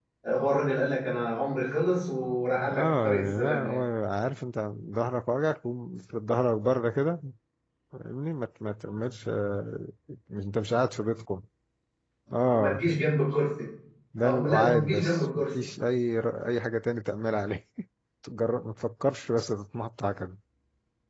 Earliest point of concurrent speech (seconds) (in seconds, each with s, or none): 2.6 s